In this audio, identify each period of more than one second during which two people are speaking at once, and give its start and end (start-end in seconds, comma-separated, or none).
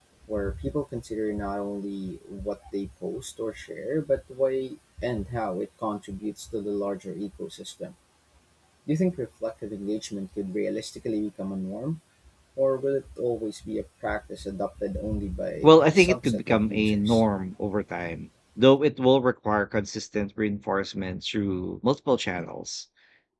15.6-17.2